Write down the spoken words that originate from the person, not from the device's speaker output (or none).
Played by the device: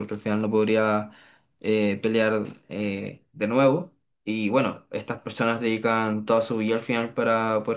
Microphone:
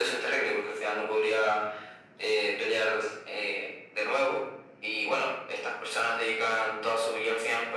none